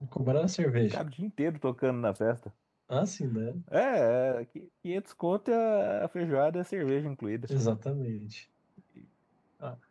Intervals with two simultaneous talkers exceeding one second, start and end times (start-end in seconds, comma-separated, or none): none